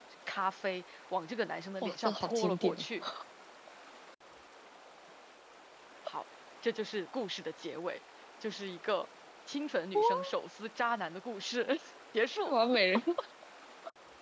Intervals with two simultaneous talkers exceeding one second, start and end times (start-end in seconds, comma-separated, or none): 1.8-3.0